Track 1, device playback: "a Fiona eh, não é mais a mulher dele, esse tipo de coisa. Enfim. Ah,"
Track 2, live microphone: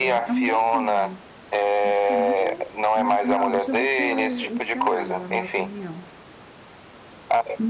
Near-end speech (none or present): present